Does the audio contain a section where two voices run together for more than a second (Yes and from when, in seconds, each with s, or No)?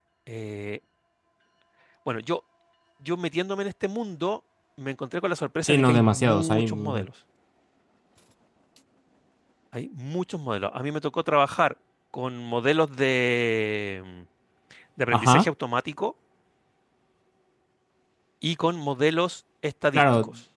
Yes, from 5.6 s